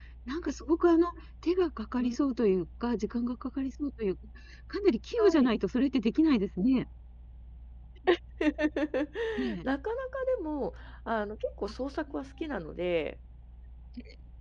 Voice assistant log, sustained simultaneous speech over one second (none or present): none